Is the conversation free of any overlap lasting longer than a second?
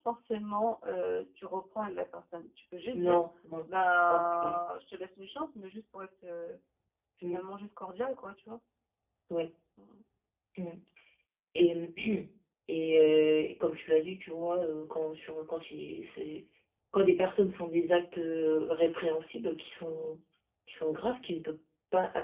Yes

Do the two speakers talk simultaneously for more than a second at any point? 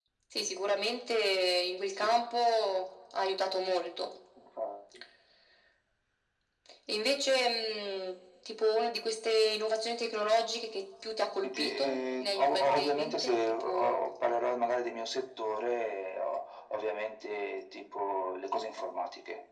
Yes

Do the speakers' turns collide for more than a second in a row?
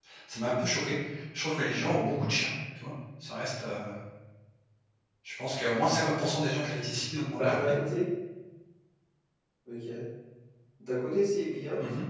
No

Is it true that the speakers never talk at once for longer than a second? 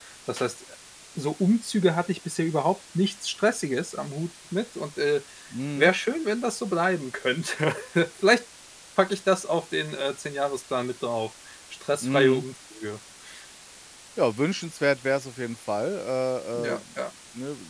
Yes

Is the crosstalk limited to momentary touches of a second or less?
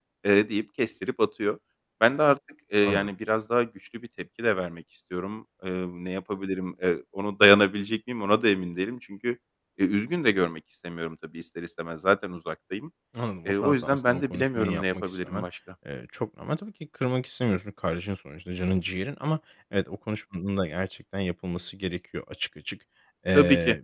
No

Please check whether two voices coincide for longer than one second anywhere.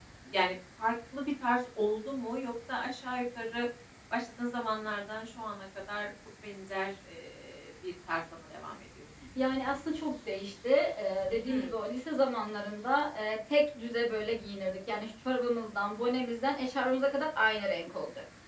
No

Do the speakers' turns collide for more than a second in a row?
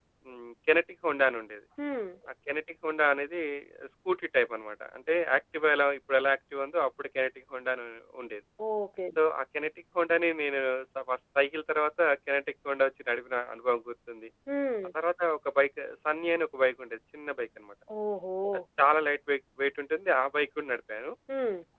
No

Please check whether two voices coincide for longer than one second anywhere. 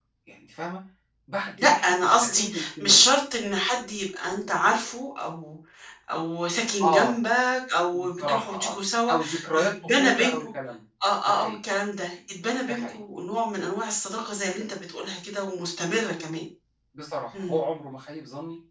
Yes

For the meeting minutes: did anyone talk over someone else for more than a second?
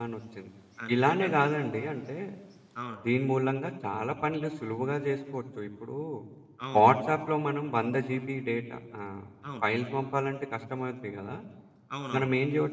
No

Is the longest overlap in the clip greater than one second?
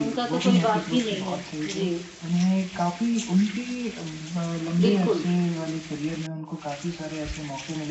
Yes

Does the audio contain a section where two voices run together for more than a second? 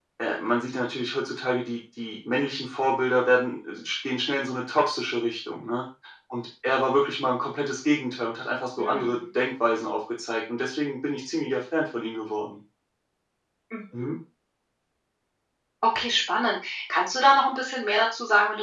No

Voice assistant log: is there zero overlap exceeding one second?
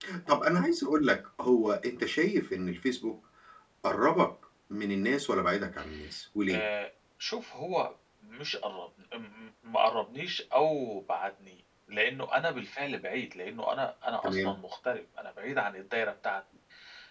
Yes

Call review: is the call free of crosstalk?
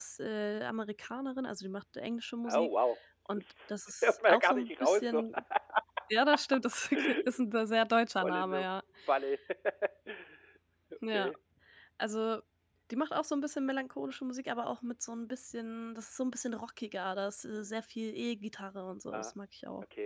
No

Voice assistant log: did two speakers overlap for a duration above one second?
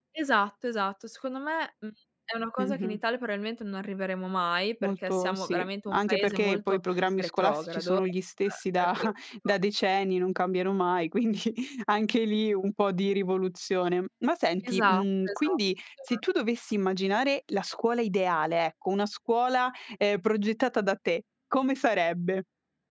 Yes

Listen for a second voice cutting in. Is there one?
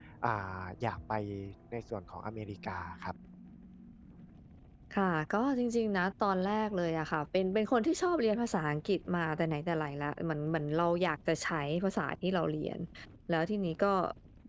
No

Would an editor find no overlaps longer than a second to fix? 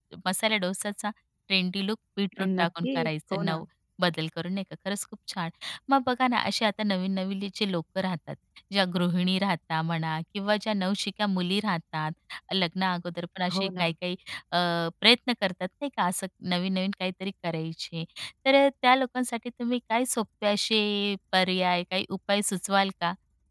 No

